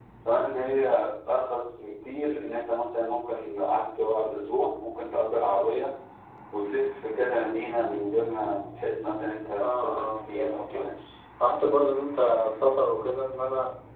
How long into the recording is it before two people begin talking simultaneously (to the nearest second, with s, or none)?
10 s